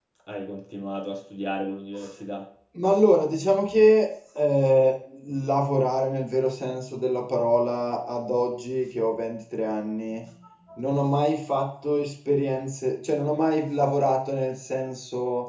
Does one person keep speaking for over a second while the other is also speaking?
No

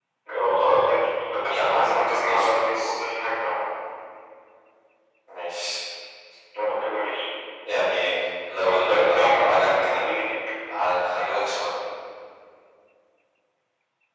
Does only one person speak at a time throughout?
No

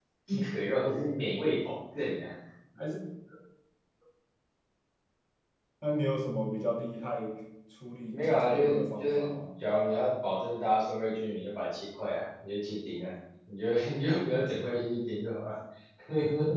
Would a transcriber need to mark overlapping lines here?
Yes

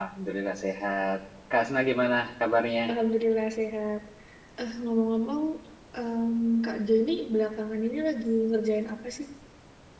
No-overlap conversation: Yes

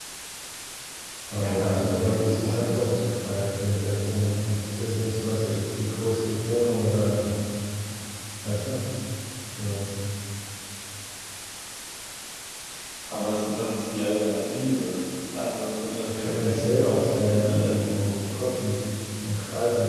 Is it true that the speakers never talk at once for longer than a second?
No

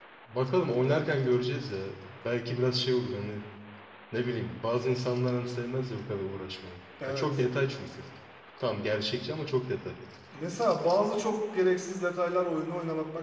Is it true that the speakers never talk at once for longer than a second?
Yes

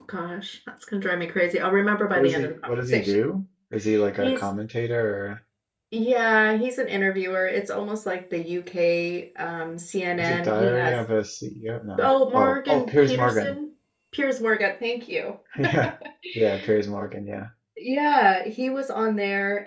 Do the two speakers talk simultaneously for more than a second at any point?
Yes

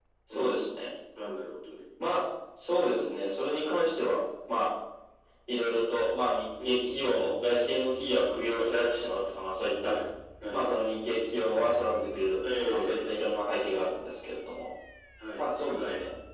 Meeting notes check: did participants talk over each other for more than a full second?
Yes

